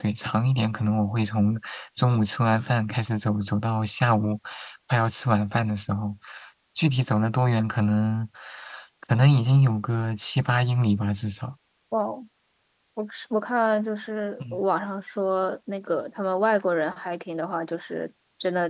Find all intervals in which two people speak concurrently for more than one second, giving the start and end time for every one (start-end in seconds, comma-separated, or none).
none